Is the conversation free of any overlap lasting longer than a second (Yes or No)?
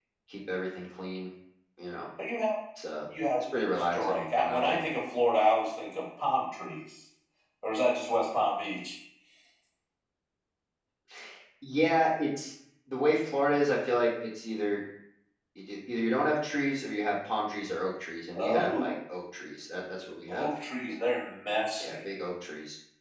No